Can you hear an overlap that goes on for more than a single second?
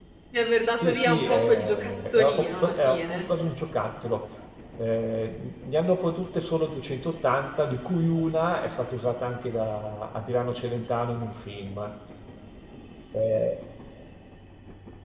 Yes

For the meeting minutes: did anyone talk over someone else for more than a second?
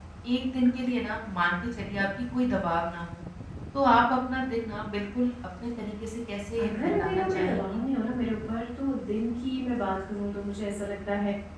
Yes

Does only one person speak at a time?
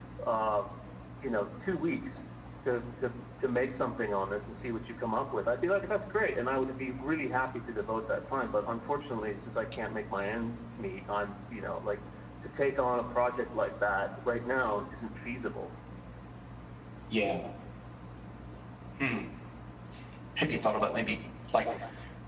Yes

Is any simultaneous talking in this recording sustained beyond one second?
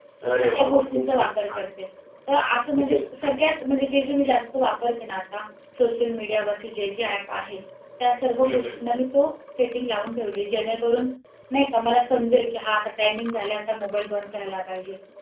Yes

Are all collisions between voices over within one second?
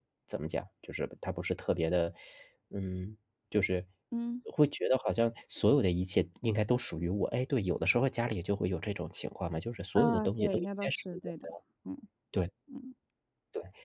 No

